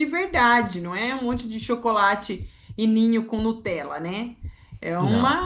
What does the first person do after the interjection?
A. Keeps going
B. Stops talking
A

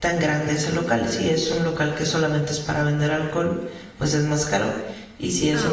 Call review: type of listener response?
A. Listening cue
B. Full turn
A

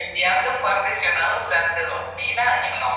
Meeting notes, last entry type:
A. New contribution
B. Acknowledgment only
B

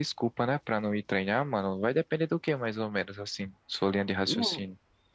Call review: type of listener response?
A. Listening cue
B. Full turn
B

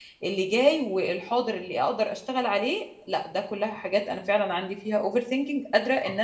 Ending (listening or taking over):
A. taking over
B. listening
A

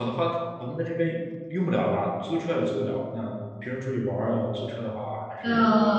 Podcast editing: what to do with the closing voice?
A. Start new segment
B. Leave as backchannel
A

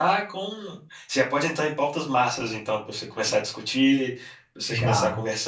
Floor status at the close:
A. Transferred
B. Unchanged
B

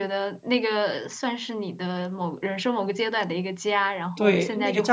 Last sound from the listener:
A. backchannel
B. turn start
B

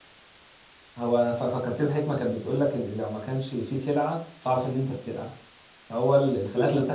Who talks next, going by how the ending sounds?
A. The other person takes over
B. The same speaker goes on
B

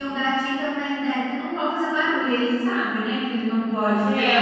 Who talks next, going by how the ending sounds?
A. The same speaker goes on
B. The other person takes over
B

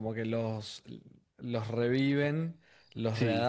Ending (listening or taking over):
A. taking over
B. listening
B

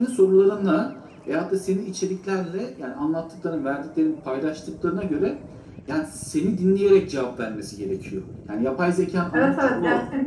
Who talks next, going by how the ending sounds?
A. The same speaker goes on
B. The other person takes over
B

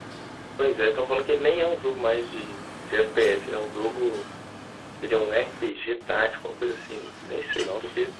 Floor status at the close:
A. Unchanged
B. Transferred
A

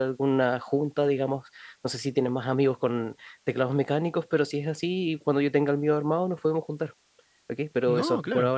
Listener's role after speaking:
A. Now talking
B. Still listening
B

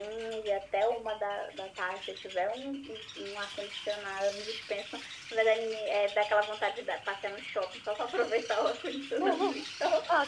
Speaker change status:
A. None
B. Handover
B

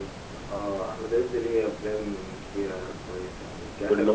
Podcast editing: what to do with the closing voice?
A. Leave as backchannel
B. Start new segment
A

